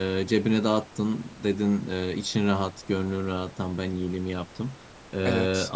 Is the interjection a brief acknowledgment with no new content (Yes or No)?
Yes